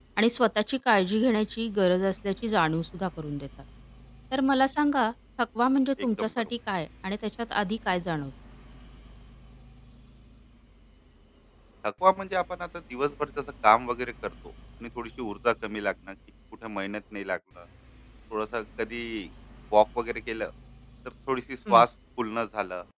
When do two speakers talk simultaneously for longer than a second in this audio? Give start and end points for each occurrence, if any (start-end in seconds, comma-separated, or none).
none